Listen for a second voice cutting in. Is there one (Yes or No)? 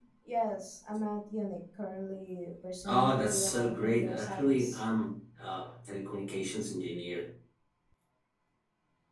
Yes